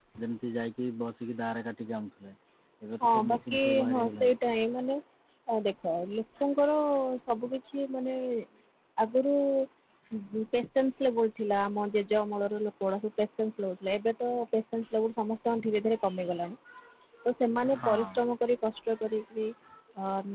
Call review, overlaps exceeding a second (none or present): present